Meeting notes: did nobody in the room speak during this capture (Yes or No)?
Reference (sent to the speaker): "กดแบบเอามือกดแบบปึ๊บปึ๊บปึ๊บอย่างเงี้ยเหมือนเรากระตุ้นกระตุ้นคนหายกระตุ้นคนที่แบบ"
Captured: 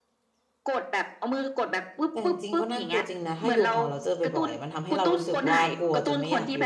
No